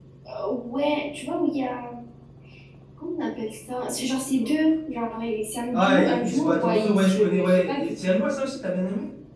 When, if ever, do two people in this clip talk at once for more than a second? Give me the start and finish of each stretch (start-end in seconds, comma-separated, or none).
5.7-7.9